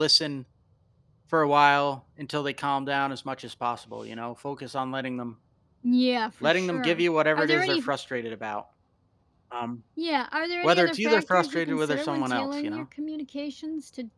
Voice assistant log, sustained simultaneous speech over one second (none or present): present